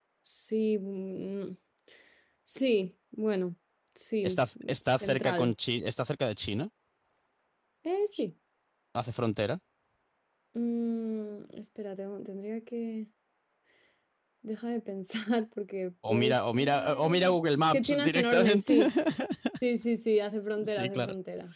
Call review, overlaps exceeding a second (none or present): present